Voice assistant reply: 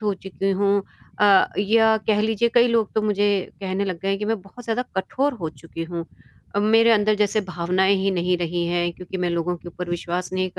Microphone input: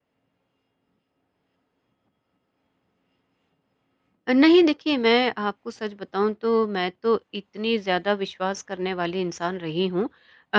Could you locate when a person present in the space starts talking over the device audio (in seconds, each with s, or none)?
4.3 s